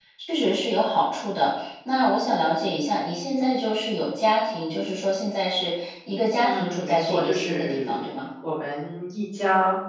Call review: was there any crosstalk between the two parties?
Yes, from 6.4 s

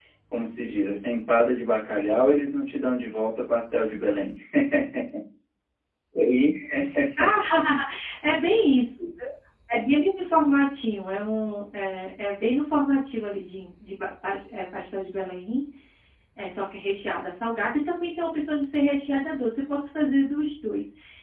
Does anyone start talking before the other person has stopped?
No

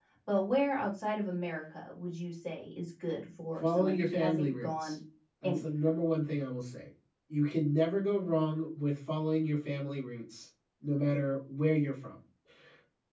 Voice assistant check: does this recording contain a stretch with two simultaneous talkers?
Yes, from 3.6 s

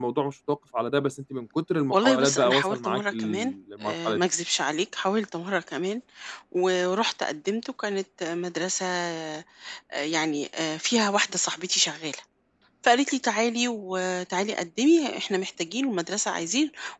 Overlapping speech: Yes, from 1.9 s

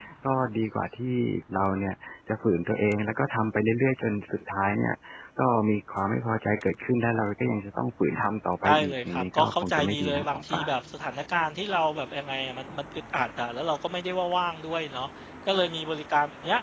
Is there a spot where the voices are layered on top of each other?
Yes, from 8.6 s

